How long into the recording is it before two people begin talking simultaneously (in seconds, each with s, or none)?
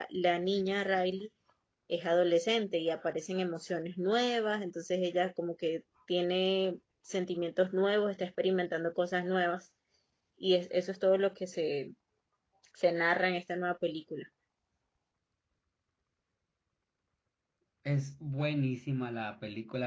none